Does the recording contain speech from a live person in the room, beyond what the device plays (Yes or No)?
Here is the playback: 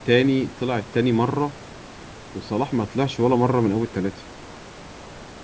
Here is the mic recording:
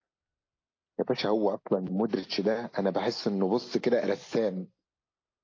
Yes